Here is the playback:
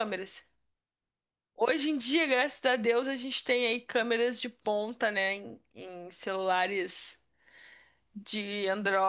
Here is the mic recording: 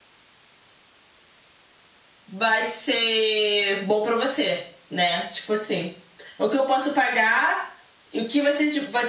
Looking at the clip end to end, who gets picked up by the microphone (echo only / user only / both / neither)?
user only